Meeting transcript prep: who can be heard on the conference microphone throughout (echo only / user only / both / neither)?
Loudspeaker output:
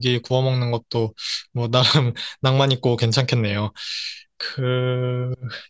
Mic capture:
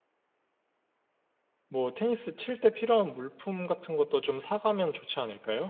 user only